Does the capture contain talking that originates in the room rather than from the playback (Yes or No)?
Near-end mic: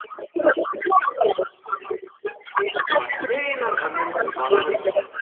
Yes